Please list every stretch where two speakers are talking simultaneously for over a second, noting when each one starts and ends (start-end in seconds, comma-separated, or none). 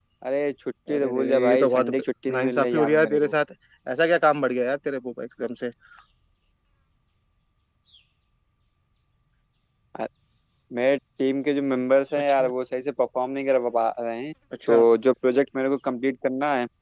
0.9-3.3